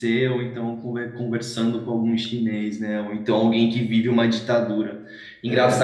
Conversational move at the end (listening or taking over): listening